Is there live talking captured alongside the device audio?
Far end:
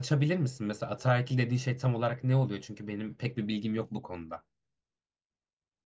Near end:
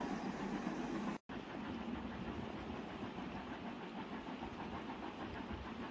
No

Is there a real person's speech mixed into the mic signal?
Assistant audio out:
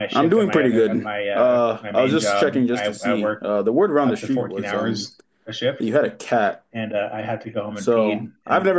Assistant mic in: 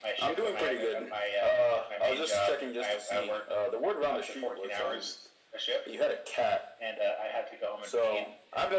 No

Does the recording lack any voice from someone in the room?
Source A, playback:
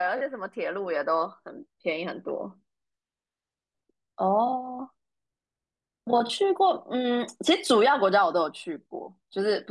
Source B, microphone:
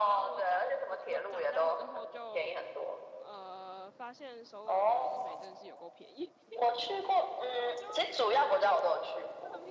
No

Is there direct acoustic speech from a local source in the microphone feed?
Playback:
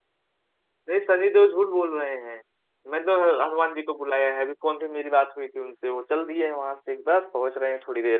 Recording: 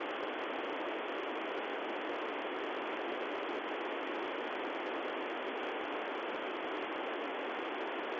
No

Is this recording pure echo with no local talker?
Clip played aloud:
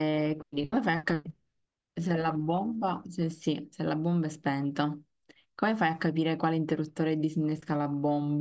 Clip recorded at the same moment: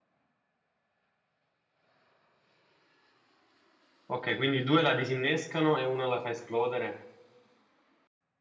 No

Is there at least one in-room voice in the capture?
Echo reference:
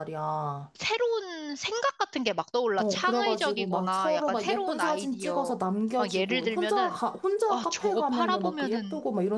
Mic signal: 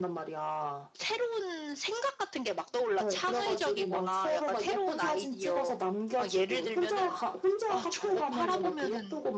No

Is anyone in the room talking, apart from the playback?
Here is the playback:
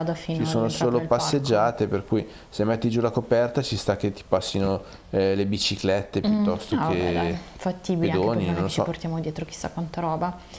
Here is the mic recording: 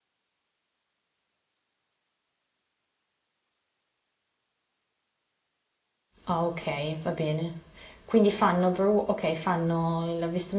Yes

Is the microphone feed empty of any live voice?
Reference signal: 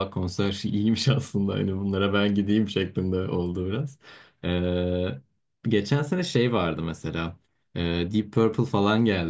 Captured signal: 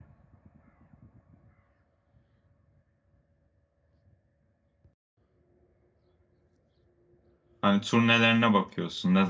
No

